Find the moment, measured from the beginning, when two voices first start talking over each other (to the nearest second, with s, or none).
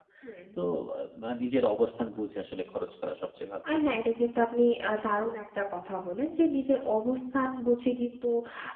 none